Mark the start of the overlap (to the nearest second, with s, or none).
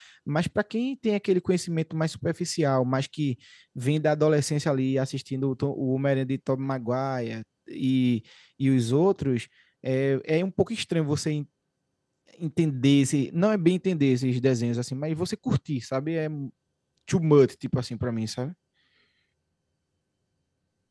none